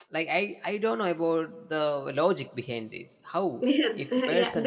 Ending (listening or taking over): taking over